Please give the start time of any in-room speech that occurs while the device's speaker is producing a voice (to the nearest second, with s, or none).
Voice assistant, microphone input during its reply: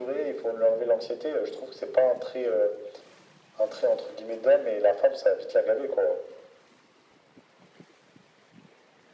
none